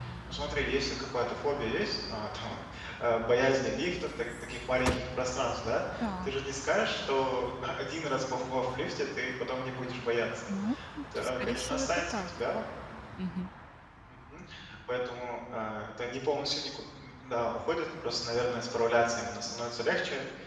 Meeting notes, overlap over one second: present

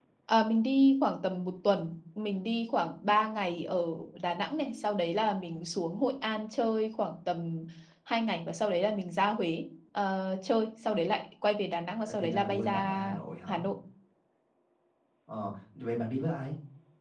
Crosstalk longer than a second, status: present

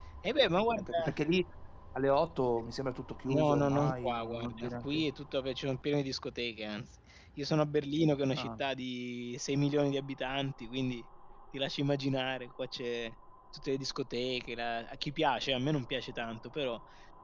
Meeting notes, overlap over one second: present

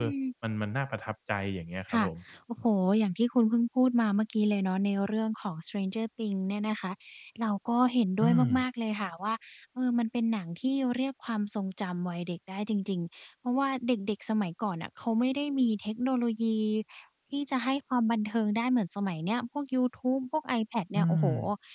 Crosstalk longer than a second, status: none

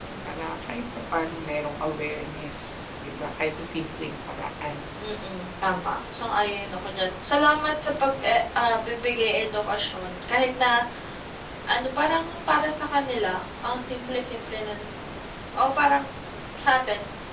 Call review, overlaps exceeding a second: none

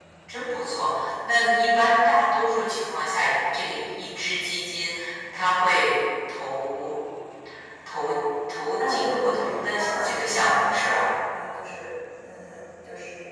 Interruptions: present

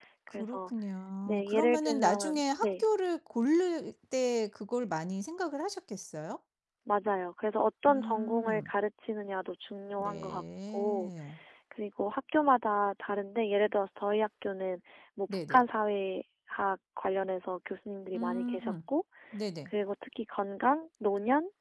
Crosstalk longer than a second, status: present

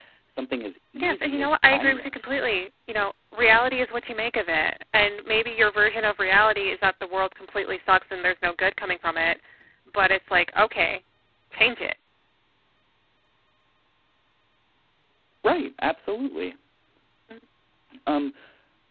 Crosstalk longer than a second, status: present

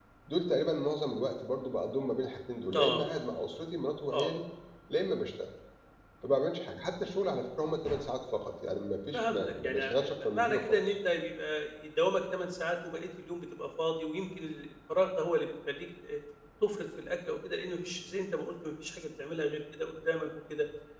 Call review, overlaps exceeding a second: present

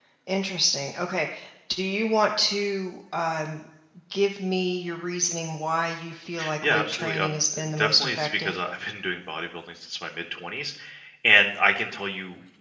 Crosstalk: present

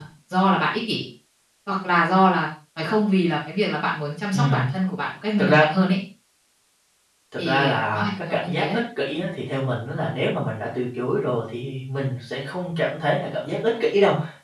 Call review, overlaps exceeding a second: present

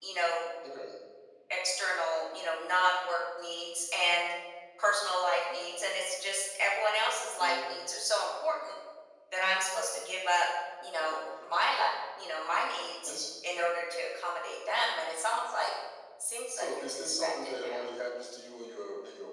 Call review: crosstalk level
present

